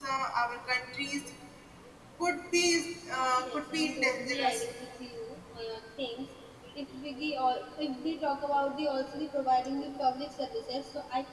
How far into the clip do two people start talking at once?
3 s

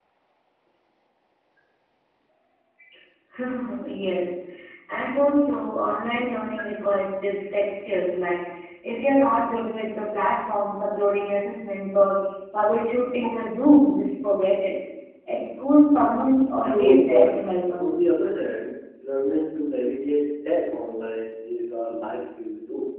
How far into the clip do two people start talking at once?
17 s

